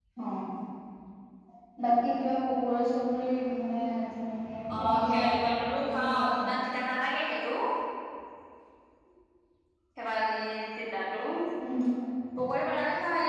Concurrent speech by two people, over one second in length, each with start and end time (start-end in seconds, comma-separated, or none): 4.8-6.6